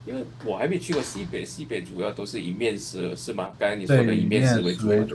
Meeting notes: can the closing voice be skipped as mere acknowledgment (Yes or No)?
No